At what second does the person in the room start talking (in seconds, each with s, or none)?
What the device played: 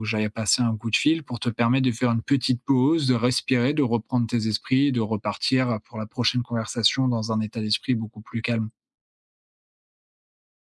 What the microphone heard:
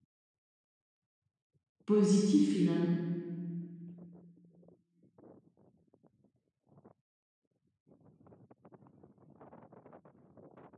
1.8 s